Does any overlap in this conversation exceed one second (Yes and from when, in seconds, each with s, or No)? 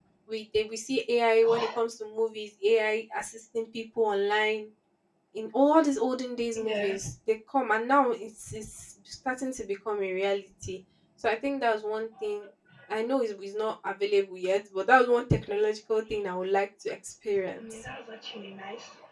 No